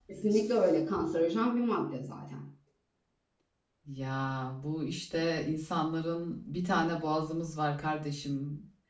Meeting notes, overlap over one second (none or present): none